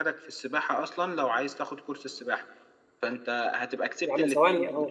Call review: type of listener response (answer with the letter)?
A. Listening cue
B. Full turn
B